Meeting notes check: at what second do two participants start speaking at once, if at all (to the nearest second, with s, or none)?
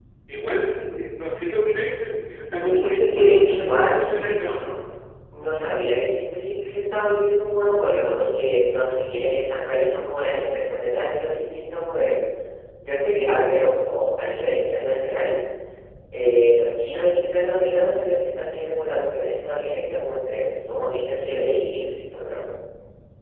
3 s